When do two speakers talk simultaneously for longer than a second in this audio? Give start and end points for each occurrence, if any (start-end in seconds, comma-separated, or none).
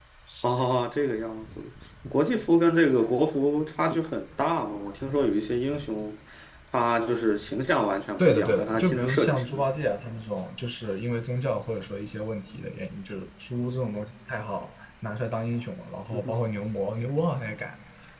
8.2-9.7